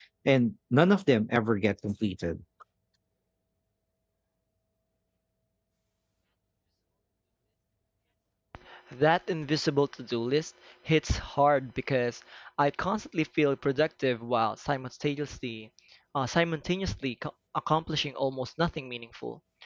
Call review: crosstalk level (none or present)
none